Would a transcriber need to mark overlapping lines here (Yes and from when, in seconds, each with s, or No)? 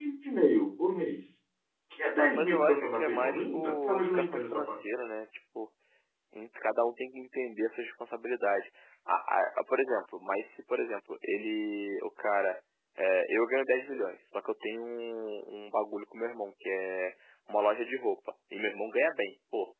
Yes, from 2.2 s